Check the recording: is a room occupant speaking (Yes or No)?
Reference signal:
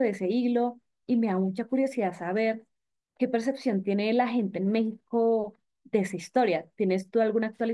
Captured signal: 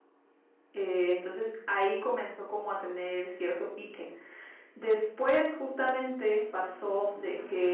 Yes